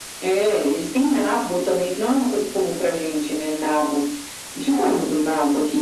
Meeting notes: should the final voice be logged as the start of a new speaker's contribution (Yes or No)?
No